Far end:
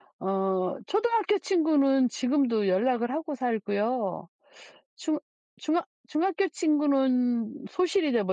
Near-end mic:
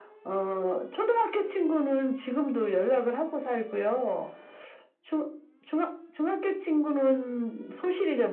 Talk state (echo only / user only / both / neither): echo only